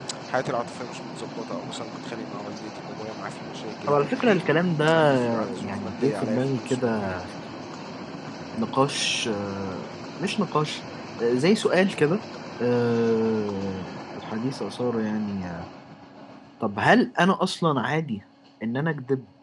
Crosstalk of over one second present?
Yes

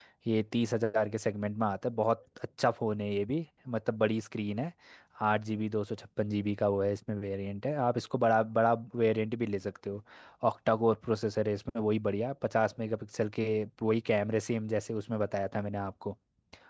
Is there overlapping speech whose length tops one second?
No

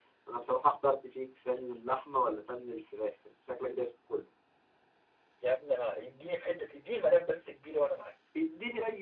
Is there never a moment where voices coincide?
Yes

